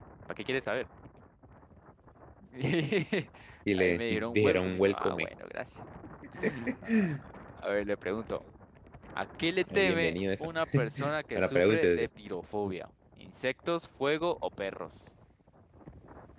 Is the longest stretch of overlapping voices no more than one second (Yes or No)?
No